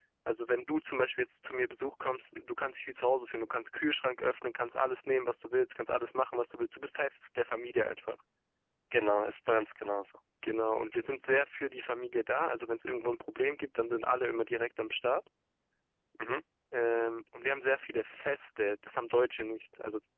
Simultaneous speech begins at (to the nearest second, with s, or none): none